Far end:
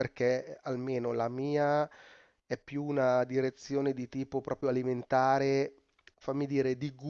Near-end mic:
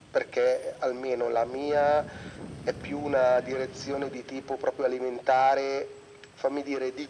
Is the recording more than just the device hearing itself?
No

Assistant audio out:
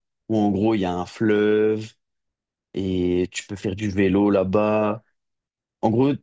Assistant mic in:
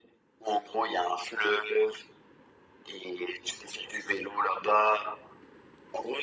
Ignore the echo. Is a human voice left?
No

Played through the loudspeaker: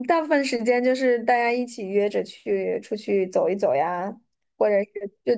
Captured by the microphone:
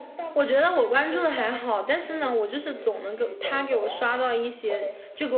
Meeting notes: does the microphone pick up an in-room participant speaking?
Yes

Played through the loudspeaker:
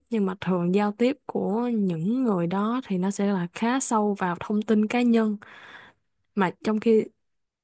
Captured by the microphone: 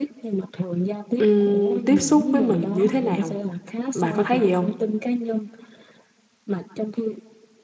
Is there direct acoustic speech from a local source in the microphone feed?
Yes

